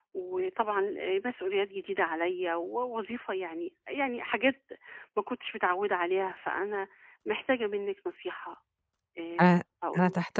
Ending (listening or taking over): taking over